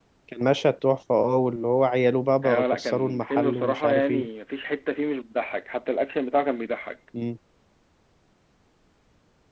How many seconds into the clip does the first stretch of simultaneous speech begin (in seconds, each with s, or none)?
2.4 s